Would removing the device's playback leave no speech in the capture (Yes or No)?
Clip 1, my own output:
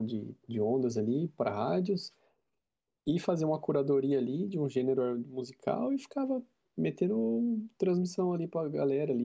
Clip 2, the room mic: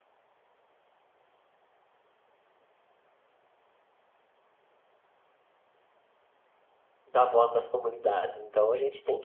No